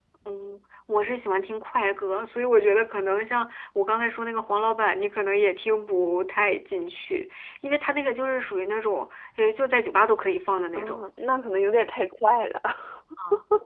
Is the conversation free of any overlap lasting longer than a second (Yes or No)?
Yes